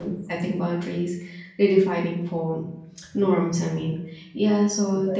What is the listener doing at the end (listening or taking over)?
listening